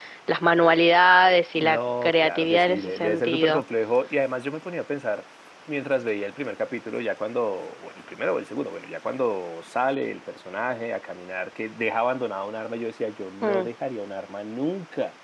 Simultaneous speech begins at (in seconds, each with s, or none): 1.6 s